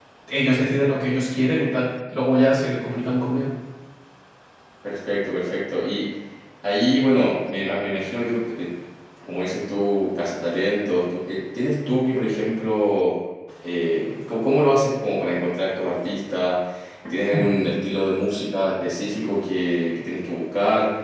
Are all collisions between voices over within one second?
Yes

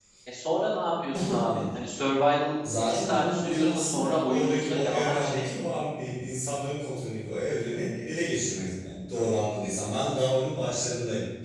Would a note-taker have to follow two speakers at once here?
Yes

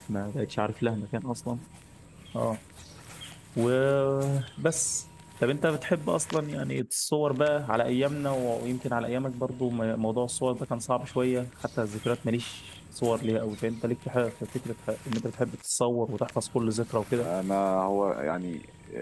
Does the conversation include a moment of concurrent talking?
No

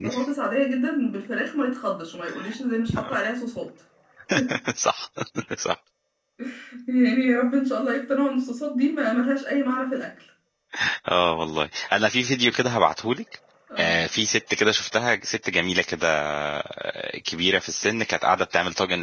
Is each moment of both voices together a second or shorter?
Yes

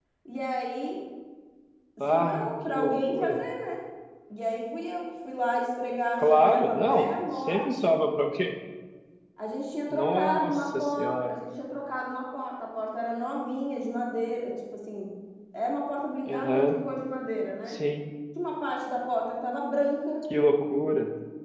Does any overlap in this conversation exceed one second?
Yes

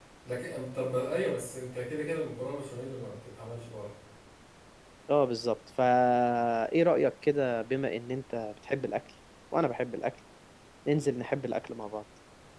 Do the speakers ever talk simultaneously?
No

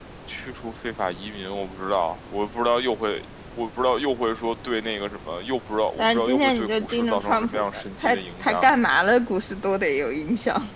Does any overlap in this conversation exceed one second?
Yes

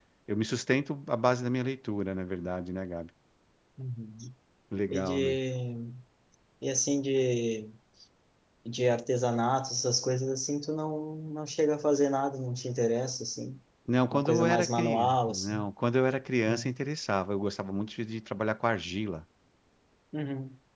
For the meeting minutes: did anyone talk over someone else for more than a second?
Yes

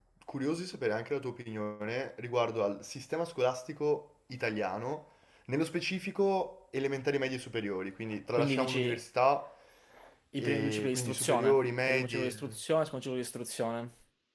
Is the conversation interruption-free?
No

